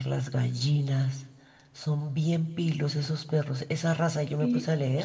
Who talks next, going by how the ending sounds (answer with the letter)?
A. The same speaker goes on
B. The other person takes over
A